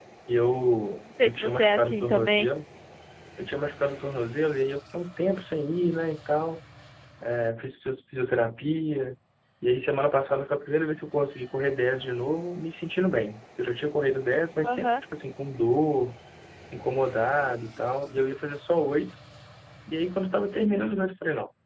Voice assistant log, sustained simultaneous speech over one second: present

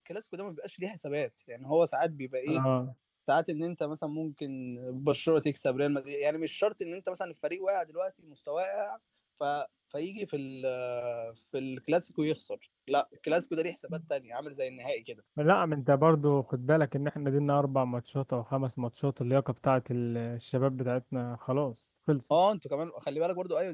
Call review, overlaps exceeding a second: none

